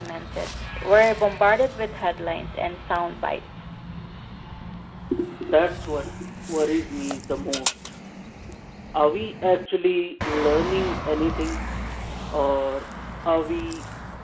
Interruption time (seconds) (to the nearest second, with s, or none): none